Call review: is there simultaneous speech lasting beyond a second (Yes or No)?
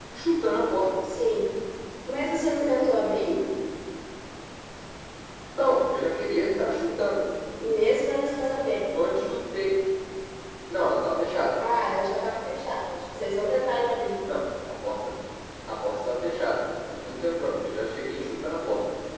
No